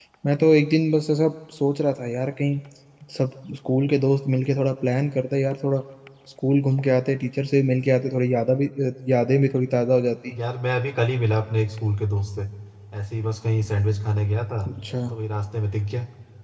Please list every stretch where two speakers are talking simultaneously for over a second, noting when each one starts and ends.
none

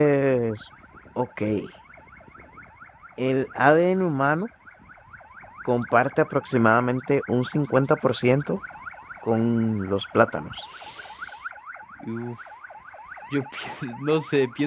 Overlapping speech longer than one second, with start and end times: none

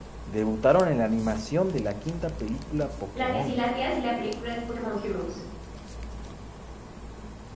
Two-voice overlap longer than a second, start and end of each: none

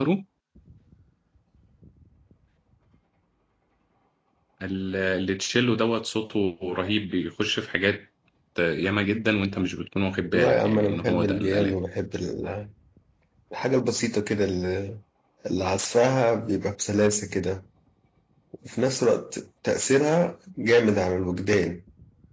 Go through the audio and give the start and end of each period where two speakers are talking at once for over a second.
10.3-11.7

